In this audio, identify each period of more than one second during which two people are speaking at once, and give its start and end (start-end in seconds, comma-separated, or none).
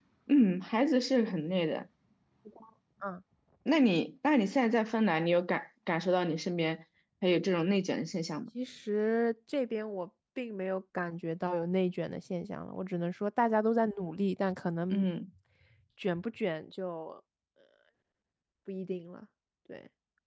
none